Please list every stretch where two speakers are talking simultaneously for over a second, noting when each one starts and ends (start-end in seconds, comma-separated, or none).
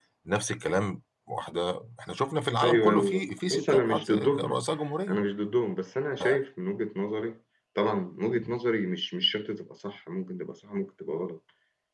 2.6-4.6